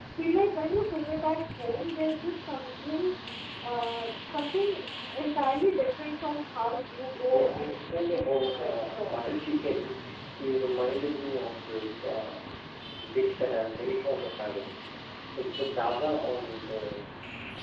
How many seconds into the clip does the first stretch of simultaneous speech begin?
7.1 s

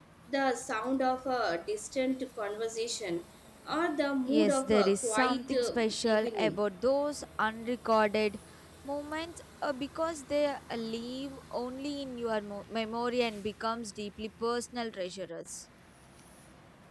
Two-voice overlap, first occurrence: 4.3 s

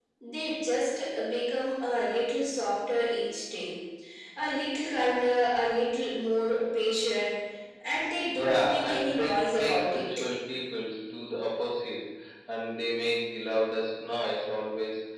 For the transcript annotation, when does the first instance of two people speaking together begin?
8.3 s

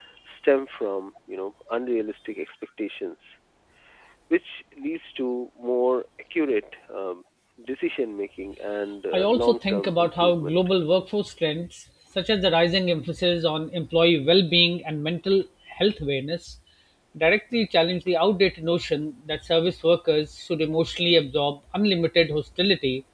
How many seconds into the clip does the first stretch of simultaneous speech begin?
9.1 s

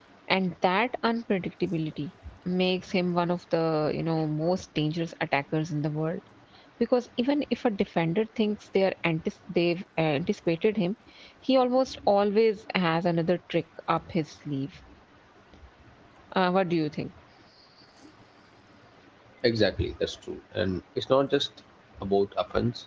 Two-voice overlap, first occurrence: none

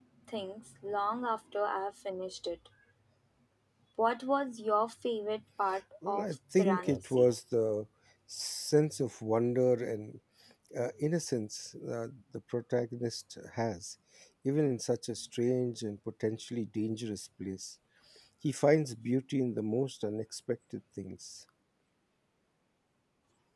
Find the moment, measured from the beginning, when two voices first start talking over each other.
6.0 s

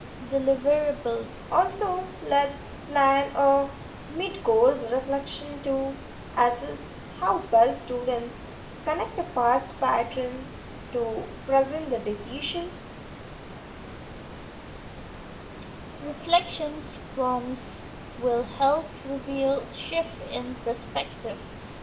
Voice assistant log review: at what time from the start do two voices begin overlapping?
none

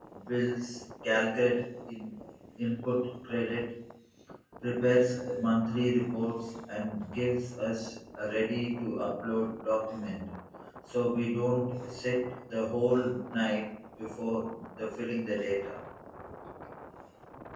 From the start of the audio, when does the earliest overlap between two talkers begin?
none

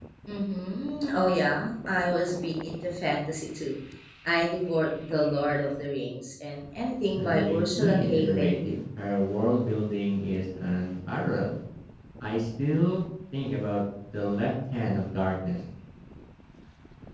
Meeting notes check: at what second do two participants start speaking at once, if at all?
7.2 s

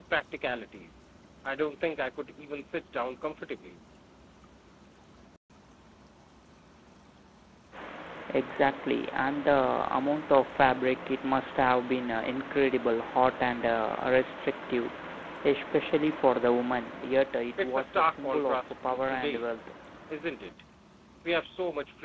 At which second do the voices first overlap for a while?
17.6 s

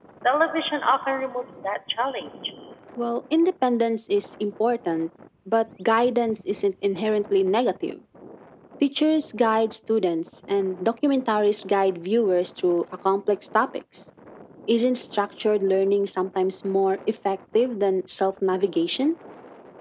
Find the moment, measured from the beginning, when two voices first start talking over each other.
none

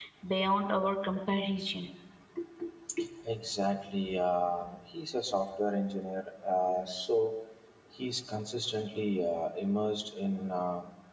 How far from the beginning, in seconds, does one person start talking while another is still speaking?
none

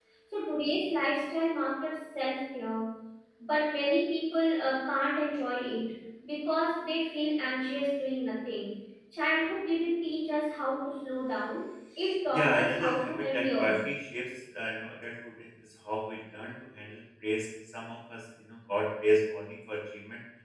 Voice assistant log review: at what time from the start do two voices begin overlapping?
12.3 s

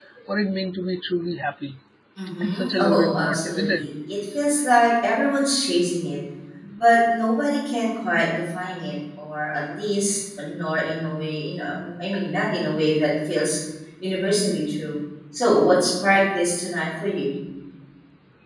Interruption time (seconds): 2.4 s

